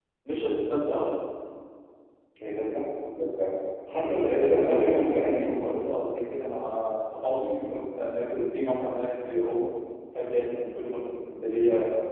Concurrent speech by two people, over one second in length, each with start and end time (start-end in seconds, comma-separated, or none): 3.9-5.3